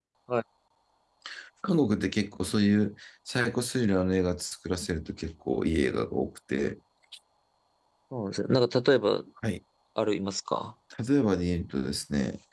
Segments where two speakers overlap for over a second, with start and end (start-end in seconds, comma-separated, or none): none